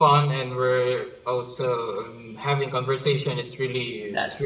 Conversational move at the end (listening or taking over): listening